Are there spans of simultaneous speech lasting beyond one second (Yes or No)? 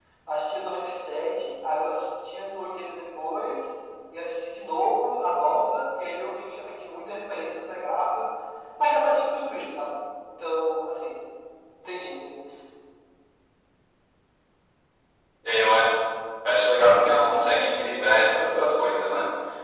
No